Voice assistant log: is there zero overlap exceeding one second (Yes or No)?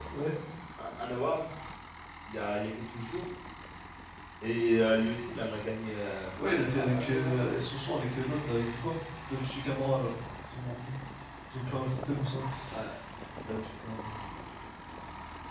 No